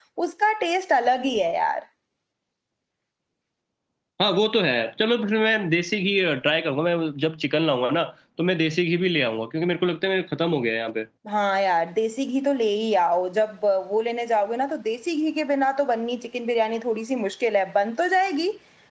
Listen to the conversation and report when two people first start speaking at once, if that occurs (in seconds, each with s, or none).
none